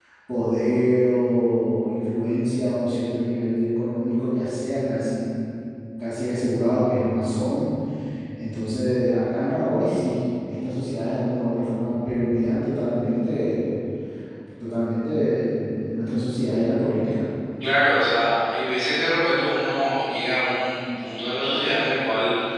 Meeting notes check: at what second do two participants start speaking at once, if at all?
none

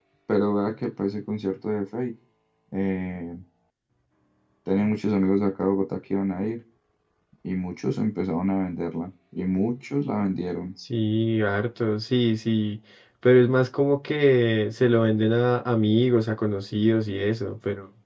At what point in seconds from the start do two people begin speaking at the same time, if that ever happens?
none

